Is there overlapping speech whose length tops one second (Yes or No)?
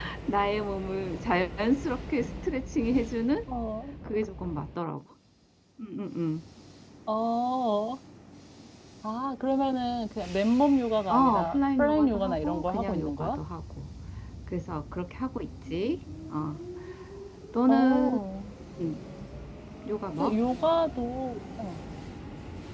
Yes